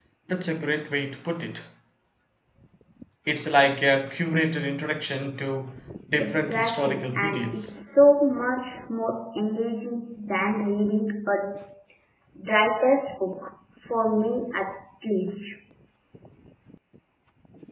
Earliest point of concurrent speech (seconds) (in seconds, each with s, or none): 6.2 s